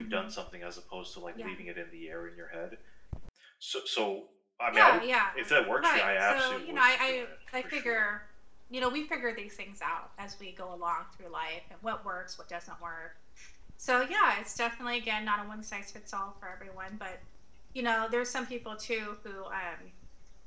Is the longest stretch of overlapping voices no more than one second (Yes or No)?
No